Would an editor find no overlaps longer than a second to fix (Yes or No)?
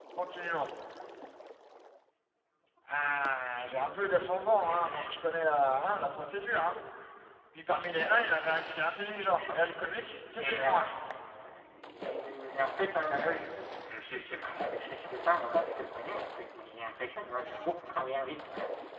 Yes